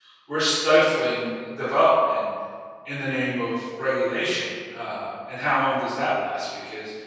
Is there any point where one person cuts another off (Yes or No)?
No